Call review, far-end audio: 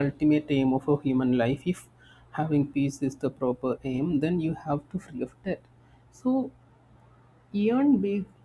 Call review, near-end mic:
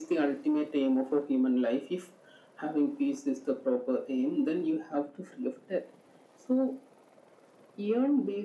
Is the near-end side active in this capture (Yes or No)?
No